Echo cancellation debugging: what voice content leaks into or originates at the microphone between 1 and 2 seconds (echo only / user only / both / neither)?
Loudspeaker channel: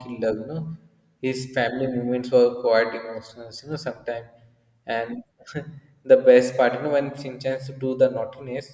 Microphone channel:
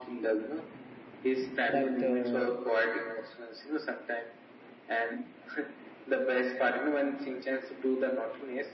both